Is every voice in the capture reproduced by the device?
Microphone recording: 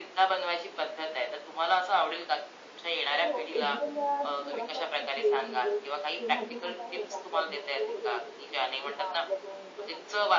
No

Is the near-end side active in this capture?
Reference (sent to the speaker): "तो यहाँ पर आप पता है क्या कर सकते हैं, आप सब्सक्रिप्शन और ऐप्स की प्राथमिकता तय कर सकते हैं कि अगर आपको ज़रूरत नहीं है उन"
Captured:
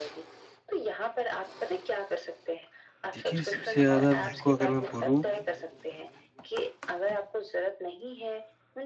Yes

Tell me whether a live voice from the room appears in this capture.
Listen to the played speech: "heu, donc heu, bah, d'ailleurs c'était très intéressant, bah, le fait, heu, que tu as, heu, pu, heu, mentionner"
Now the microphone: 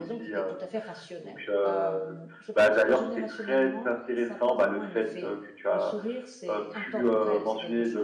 Yes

